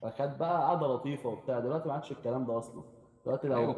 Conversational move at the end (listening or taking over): listening